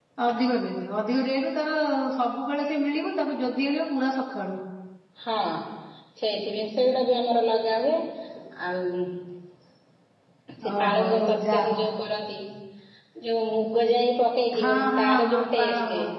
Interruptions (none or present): present